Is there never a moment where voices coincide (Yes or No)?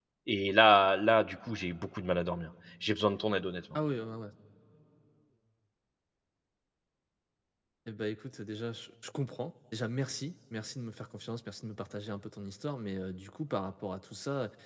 Yes